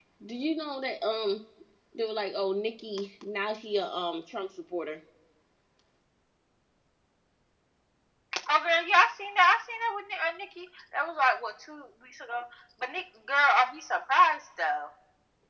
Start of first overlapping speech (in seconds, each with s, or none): none